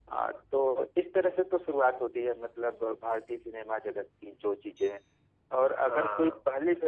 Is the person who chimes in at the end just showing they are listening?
Yes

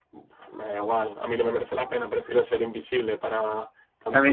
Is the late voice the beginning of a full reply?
Yes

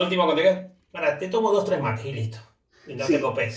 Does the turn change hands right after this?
Yes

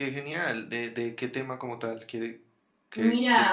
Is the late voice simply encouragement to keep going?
No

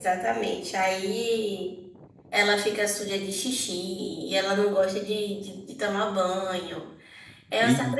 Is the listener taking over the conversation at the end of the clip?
No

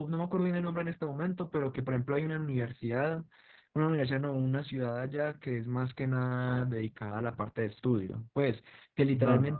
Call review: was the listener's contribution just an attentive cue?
Yes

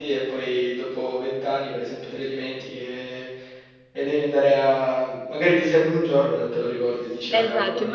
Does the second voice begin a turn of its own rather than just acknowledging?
Yes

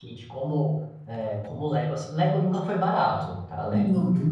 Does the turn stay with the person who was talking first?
Yes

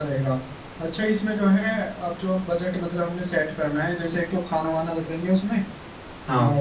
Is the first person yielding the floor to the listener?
No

